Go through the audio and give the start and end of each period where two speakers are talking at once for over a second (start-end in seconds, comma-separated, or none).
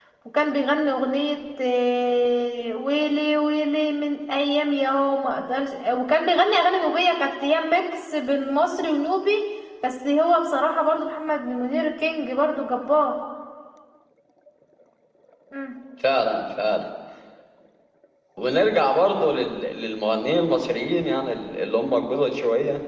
none